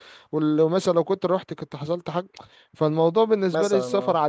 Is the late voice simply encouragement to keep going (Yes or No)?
Yes